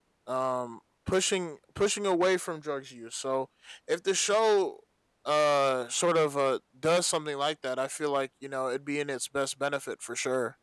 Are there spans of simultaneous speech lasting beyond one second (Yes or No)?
No